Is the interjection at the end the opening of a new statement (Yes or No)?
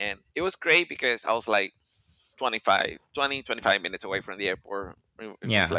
No